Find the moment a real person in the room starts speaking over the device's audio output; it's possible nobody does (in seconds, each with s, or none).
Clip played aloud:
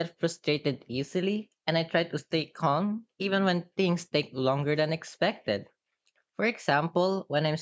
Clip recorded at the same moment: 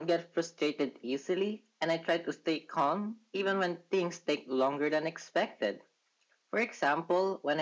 none